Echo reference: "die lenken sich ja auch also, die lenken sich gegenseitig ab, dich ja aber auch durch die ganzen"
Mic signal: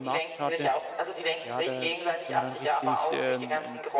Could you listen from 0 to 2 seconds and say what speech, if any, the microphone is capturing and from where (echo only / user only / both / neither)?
both